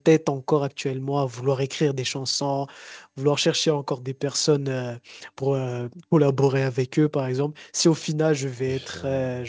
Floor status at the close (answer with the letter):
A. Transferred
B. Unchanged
B